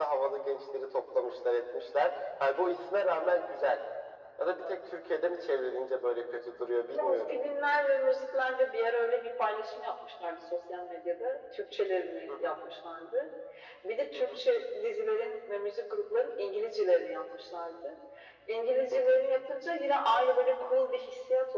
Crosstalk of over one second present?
No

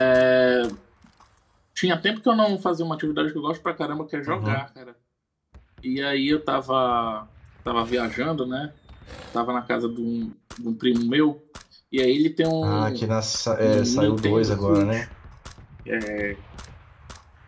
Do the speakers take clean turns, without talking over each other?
No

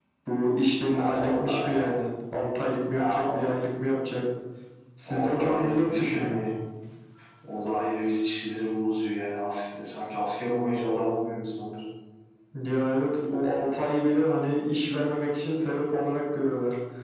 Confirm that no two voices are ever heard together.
No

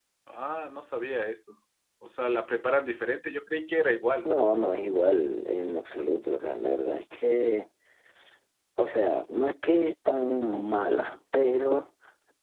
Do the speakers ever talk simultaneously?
No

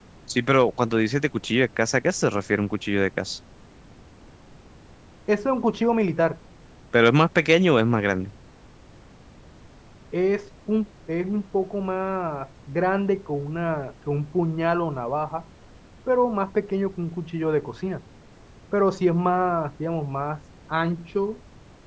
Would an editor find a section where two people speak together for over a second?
No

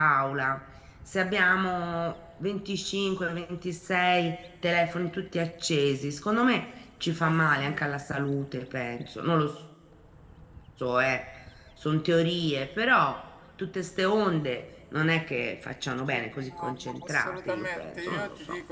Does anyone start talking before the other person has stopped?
Yes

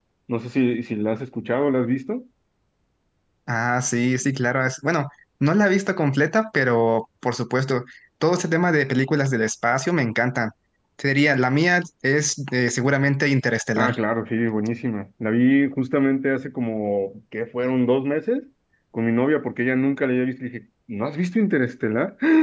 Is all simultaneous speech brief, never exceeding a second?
Yes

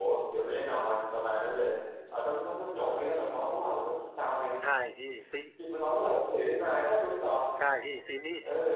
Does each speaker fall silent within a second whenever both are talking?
Yes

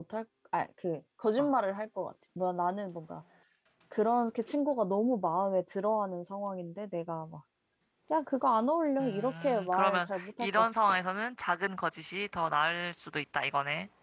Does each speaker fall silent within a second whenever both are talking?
No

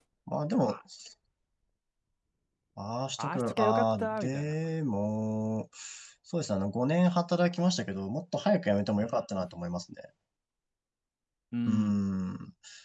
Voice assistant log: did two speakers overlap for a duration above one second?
Yes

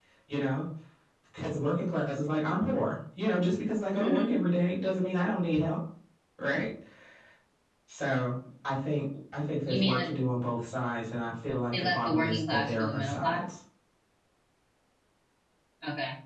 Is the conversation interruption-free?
No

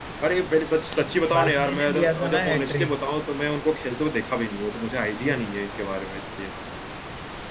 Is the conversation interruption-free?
No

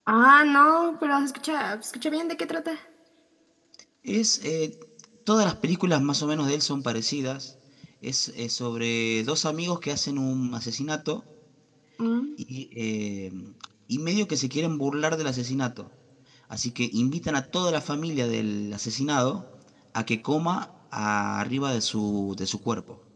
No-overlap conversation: Yes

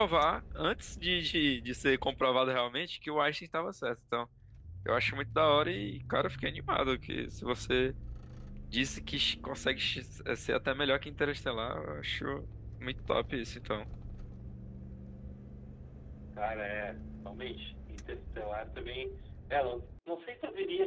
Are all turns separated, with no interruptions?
Yes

